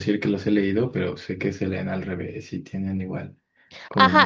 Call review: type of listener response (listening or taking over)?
taking over